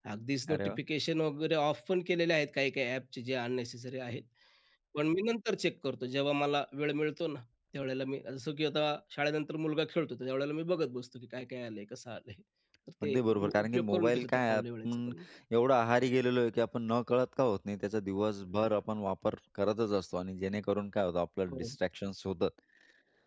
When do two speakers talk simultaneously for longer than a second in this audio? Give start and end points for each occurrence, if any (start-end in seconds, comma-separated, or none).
13.0-15.1